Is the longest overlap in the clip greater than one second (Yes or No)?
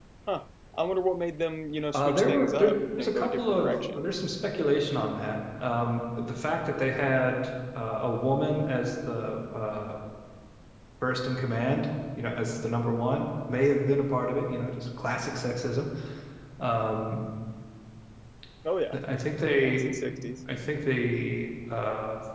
Yes